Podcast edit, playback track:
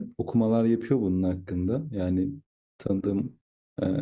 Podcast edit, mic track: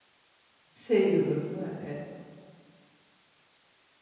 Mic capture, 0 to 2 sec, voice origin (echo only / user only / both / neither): user only